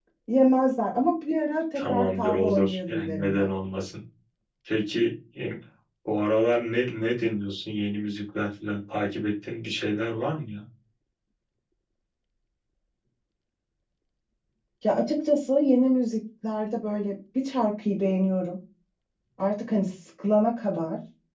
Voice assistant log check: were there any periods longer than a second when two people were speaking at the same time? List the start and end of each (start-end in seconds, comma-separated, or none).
1.8-3.5